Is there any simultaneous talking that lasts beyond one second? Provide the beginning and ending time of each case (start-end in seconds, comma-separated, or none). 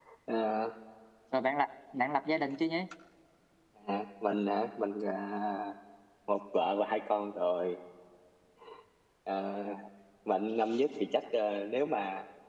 none